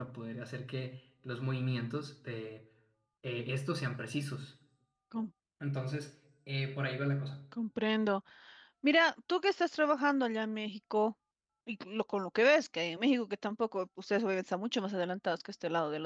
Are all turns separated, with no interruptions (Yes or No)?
Yes